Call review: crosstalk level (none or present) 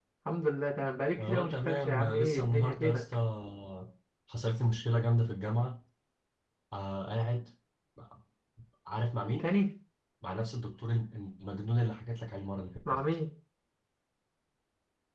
present